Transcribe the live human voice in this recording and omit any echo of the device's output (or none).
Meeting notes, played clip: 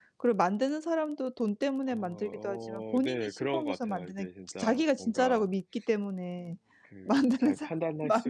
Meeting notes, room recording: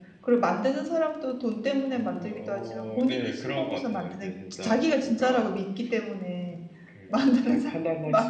none